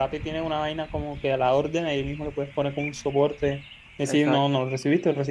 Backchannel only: Yes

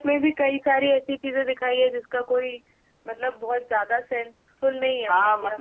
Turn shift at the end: Yes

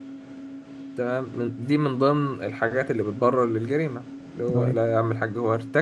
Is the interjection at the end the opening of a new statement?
No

